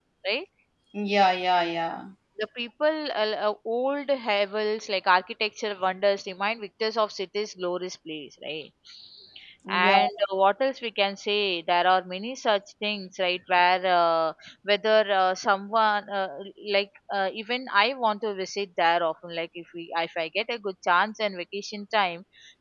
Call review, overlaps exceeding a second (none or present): none